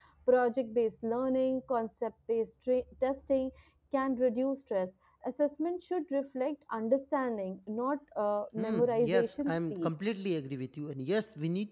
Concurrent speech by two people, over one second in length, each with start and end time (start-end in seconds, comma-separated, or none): 8.6-9.9